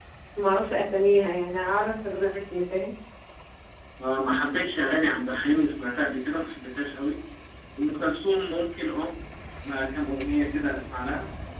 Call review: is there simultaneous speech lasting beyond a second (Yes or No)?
No